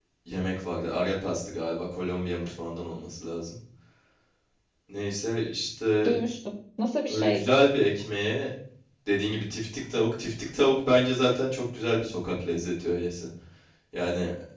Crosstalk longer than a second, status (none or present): none